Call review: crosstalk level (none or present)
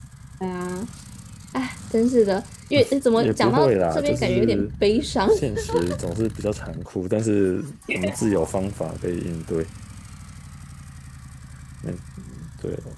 present